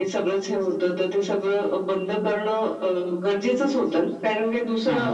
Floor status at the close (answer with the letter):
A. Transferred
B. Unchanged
B